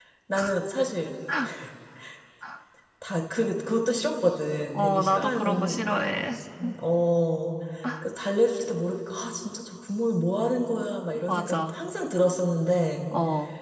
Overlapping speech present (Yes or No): Yes